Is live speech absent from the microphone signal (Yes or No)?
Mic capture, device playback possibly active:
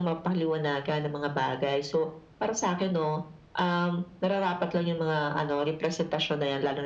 Yes